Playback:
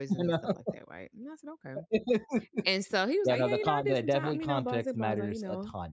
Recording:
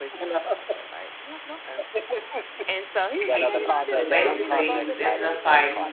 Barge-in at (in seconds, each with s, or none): 3.2 s